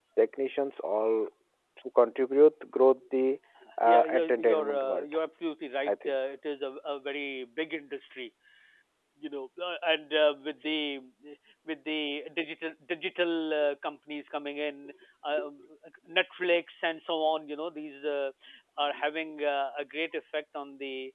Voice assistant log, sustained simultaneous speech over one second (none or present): present